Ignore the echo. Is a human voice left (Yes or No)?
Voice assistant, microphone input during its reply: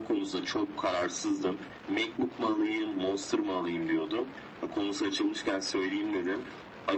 No